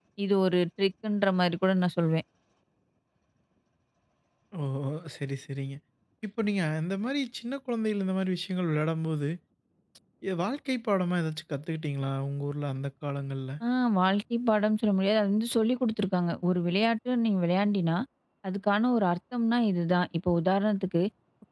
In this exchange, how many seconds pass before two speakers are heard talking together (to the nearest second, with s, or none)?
none